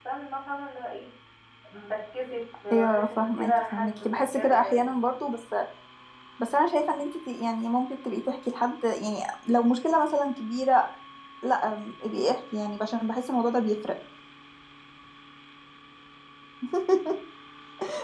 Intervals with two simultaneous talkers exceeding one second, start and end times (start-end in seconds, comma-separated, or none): 2.7-5.0